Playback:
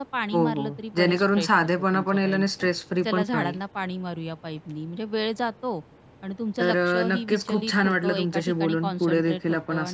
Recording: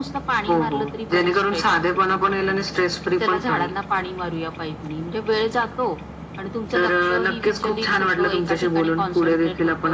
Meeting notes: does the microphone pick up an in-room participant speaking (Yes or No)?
No